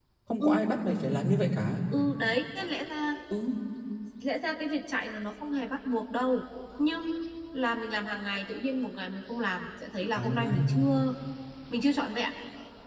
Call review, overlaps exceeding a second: none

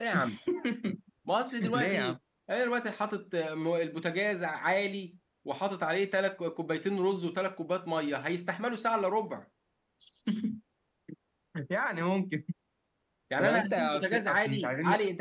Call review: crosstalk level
present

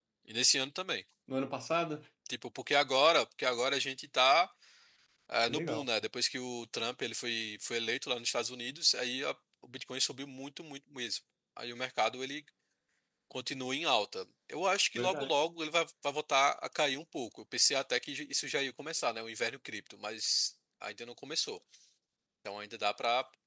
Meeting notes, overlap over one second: none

